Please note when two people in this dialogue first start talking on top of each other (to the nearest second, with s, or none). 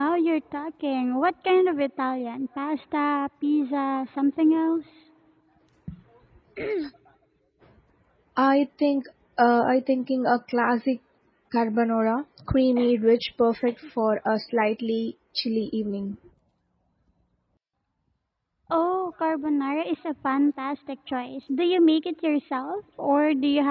none